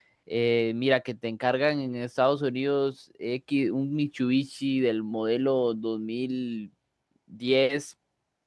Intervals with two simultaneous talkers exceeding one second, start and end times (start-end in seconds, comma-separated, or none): none